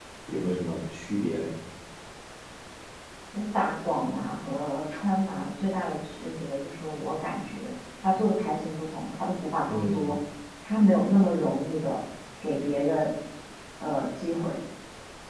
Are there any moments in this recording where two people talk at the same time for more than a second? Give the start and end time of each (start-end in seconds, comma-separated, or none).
none